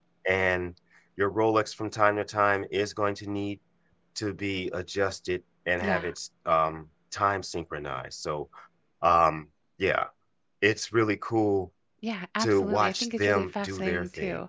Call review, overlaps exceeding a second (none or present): present